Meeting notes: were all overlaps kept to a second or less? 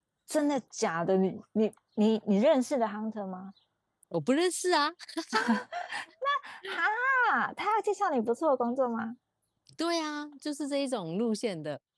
Yes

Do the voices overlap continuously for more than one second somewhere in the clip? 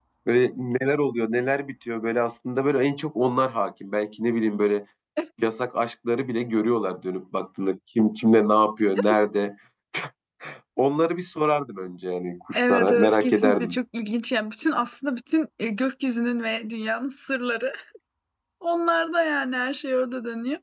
Yes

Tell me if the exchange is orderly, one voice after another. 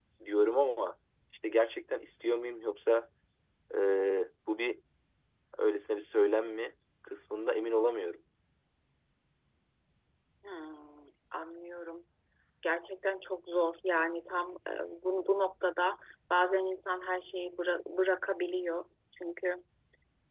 Yes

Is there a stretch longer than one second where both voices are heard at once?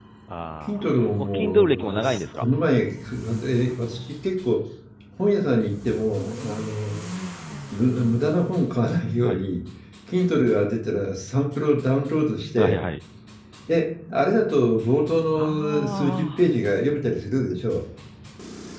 Yes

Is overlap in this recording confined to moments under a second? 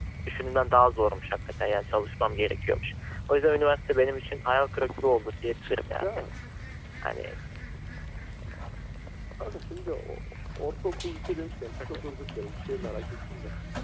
Yes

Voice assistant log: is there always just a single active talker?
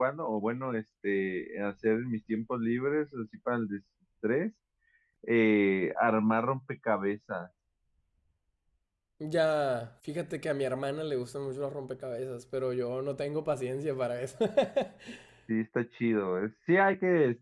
Yes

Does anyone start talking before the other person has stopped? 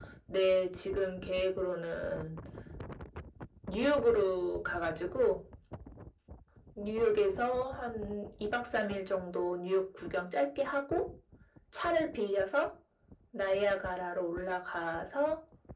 No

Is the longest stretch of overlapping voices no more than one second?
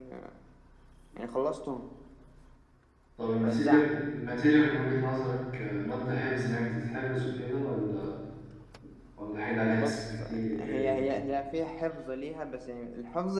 No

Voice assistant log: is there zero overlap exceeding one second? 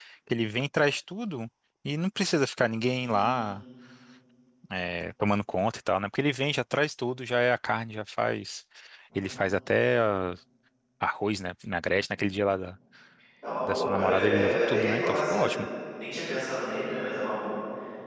No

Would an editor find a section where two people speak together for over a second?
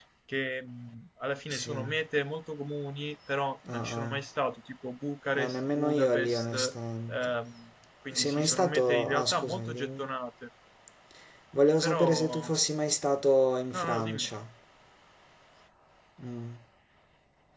Yes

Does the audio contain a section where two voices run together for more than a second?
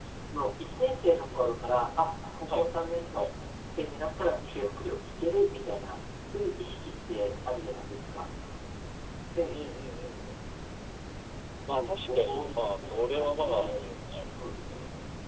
Yes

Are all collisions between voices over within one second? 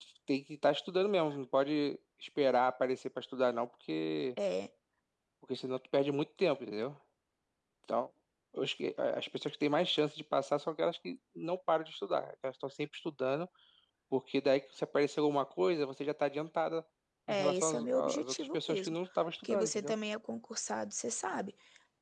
No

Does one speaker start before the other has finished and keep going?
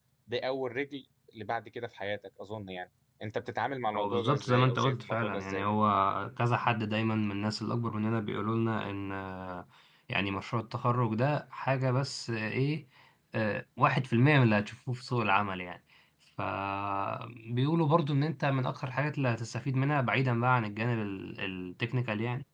Yes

